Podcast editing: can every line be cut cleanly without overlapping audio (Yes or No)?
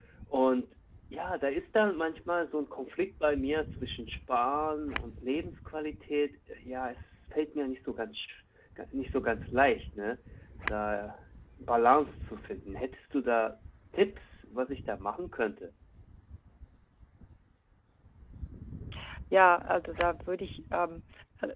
Yes